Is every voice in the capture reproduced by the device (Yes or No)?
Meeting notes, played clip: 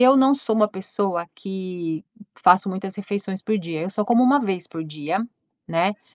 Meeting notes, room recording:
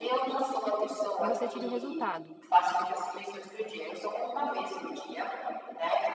No